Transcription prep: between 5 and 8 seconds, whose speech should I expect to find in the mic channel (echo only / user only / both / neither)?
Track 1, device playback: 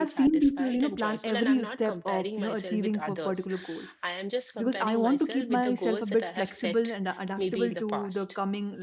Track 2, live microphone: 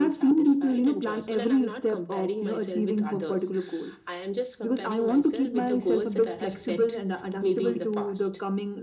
echo only